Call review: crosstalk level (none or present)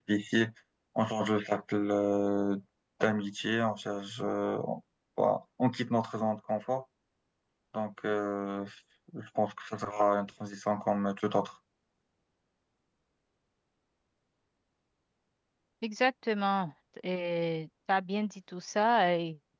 none